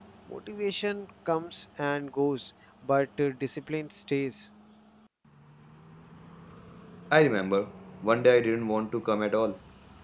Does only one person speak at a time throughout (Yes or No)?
Yes